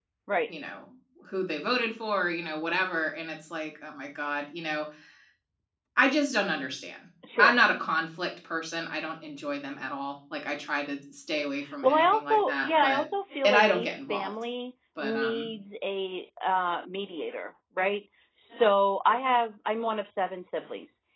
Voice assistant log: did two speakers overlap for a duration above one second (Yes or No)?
Yes